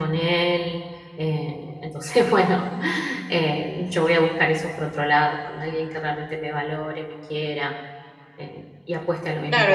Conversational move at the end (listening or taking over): taking over